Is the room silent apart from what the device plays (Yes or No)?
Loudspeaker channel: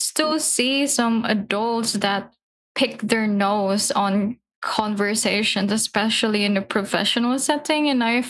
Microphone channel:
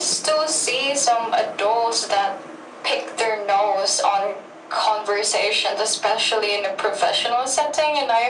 Yes